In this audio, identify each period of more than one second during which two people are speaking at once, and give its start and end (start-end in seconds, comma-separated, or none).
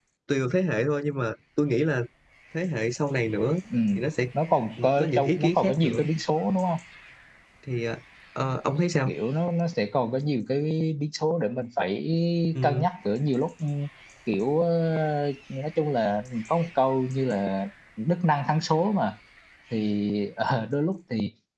4.8-6.0